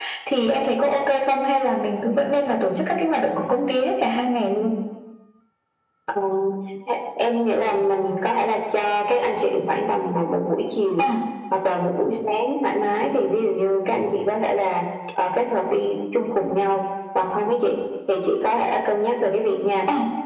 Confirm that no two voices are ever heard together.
Yes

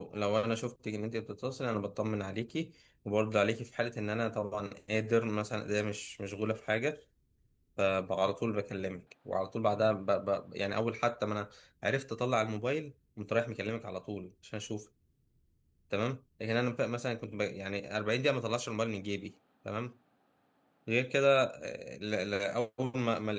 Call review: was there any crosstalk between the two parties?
No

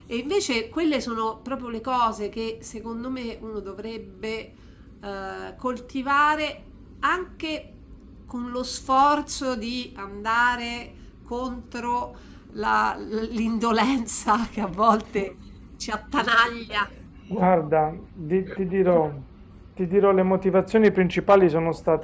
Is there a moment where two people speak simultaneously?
No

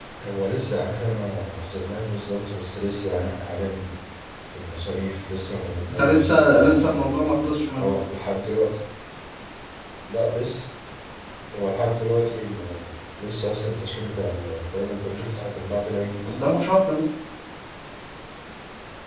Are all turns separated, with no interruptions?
No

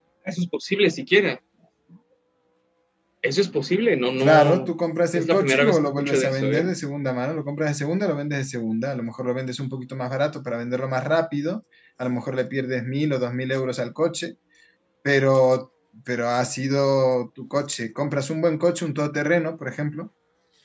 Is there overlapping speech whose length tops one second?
Yes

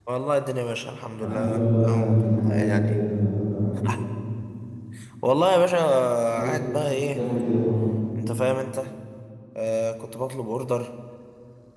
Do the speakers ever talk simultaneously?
Yes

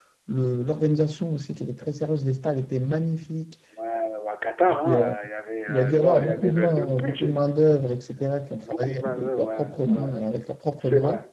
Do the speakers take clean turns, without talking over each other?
No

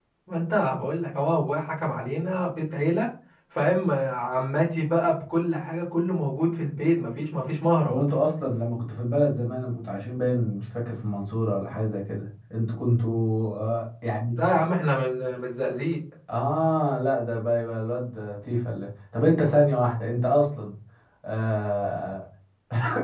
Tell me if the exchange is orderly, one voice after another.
Yes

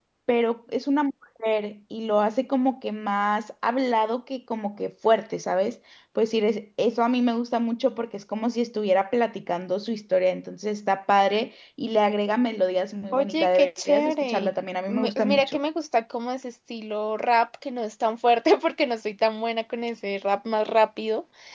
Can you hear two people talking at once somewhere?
Yes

